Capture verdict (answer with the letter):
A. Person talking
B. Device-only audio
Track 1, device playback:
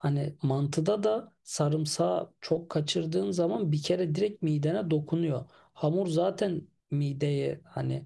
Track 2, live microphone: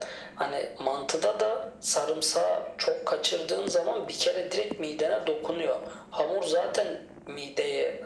B